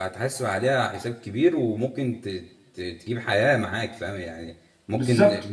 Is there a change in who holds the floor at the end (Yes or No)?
No